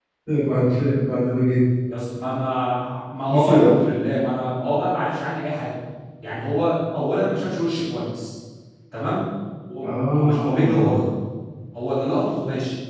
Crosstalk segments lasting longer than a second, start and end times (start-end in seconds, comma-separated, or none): 9.8-11.1